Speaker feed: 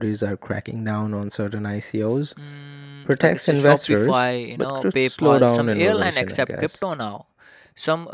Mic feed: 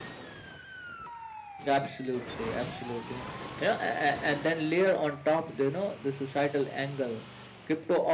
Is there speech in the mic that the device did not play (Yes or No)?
Yes